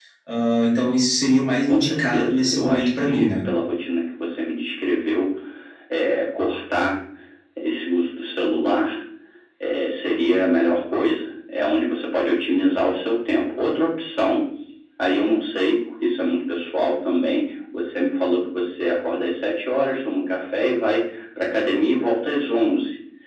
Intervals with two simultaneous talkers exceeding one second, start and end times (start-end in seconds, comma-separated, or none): 1.7-3.3